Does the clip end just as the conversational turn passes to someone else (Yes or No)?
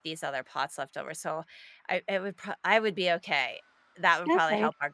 Yes